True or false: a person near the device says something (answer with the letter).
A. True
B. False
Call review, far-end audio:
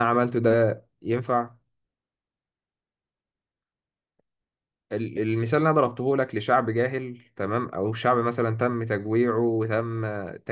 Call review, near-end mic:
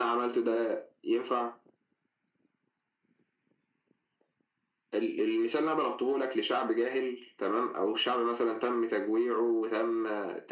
B